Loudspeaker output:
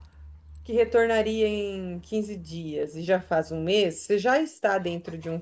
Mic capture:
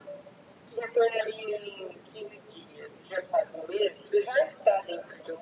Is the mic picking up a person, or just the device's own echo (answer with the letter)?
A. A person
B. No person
B